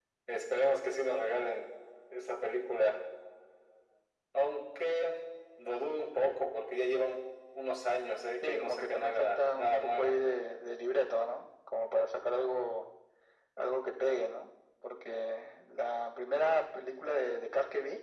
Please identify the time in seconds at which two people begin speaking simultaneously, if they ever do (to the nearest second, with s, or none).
8 s